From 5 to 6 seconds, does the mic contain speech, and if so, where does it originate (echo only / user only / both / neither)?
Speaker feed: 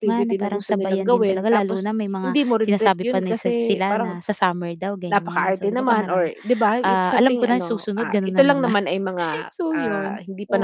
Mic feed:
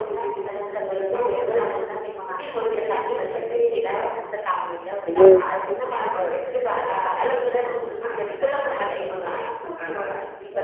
both